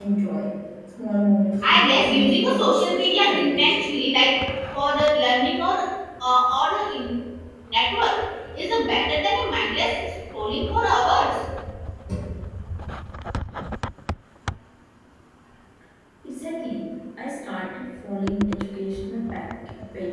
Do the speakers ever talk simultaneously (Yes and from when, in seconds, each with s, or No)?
Yes, from 1.5 s